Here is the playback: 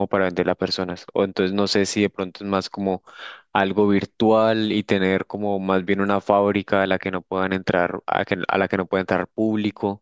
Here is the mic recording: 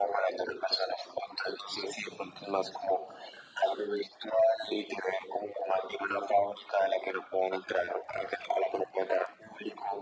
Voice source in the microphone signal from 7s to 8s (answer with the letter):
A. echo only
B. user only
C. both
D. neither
A